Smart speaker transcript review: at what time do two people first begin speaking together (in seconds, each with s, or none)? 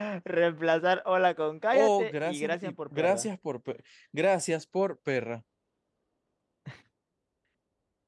1.7 s